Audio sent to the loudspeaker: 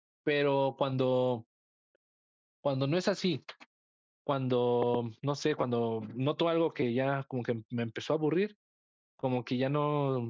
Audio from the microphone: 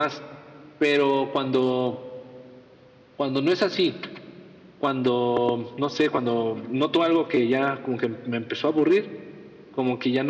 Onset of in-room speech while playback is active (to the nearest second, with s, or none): none